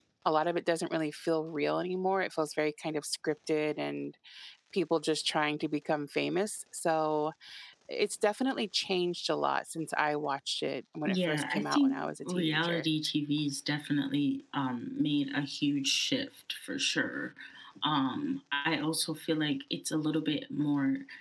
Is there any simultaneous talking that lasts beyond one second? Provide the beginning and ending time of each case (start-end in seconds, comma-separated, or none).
11.1-12.8